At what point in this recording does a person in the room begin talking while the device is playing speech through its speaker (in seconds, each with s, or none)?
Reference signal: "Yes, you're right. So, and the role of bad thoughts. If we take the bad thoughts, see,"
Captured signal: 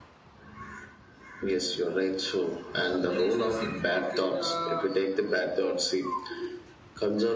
2.9 s